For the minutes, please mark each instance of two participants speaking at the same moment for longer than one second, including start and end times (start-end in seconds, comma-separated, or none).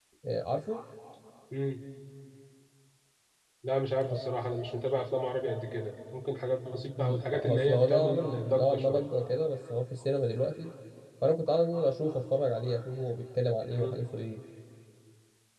7.0-9.0